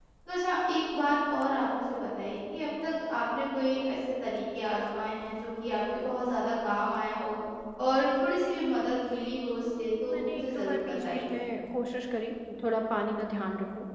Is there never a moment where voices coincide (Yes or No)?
No